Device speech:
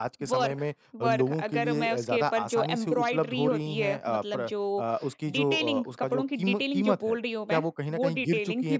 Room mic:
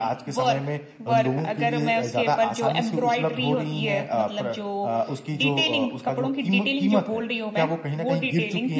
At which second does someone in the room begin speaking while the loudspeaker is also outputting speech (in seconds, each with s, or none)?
none